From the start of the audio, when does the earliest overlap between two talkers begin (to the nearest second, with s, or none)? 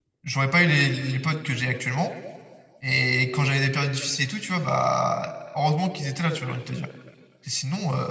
none